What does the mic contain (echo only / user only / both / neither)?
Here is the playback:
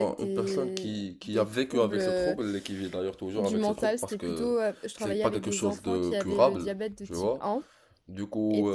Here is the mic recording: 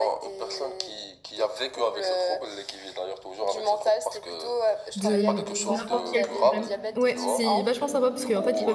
both